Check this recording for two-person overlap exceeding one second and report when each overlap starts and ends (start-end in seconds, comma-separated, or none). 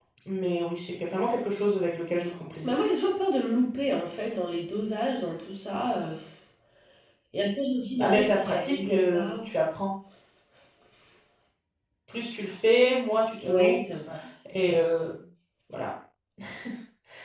8.0-9.4